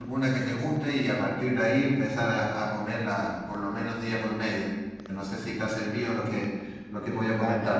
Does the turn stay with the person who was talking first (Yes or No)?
No